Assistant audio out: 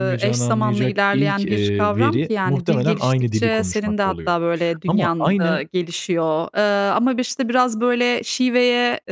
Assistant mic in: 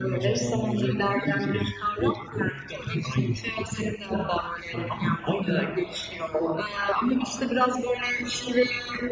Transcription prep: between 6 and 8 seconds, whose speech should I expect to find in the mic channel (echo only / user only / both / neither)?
echo only